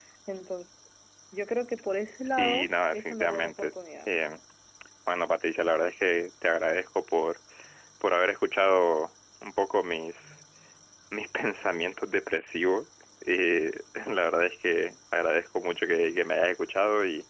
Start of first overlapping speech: 2.3 s

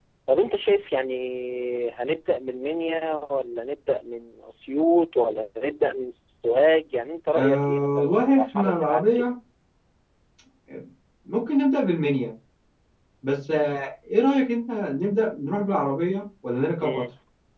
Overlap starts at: 7.4 s

